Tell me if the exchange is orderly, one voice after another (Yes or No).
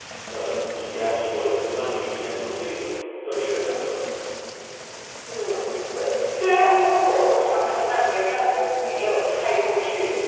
Yes